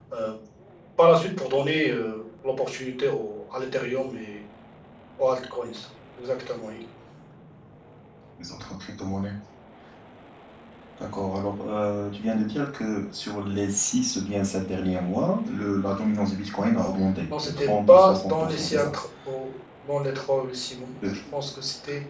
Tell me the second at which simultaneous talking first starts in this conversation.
17.3 s

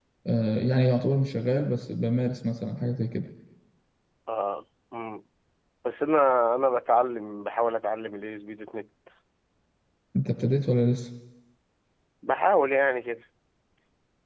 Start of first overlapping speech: none

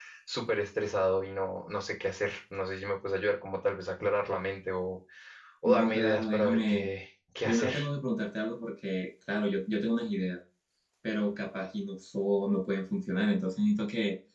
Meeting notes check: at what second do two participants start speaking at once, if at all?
5.7 s

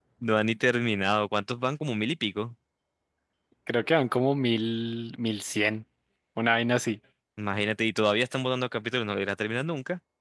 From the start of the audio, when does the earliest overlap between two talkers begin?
none

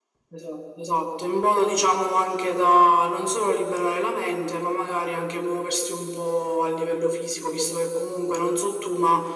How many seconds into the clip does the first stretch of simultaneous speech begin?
none

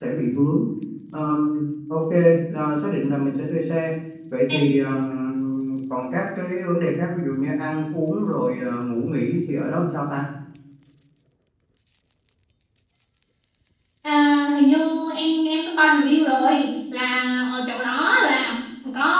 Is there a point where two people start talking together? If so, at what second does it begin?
none

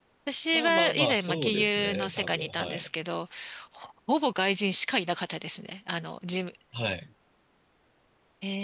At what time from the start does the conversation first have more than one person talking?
0.5 s

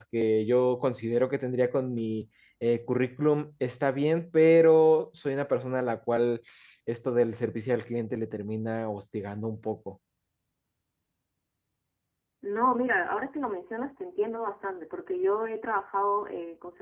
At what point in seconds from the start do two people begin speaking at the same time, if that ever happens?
none

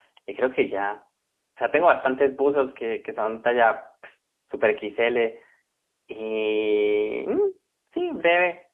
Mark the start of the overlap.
none

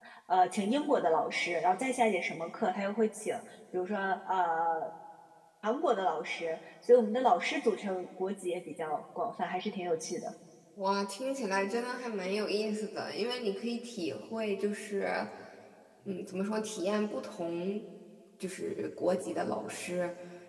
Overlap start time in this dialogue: none

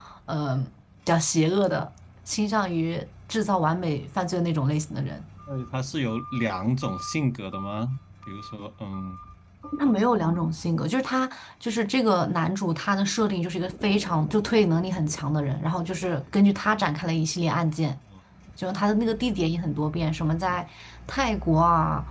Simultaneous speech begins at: none

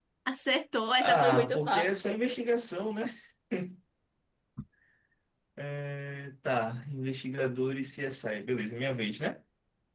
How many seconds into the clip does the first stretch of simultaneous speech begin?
1.0 s

